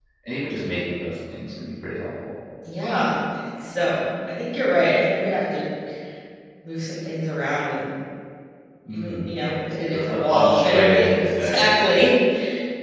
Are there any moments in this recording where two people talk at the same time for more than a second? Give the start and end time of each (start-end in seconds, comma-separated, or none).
9.9-11.7